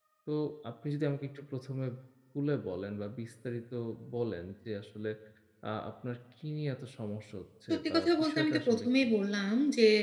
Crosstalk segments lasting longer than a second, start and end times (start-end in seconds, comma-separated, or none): 7.7-9.1